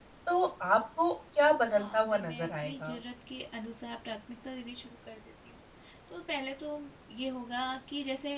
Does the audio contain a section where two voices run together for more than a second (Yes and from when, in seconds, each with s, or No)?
Yes, from 1.8 s